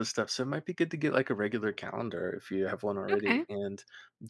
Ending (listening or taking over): listening